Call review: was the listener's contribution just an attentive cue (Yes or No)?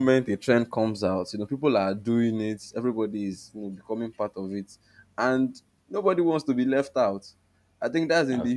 Yes